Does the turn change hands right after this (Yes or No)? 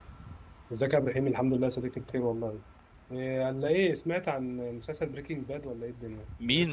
Yes